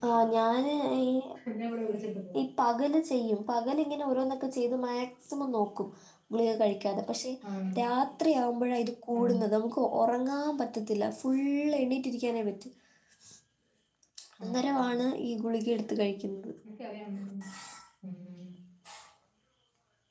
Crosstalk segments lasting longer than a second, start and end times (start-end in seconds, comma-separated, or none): none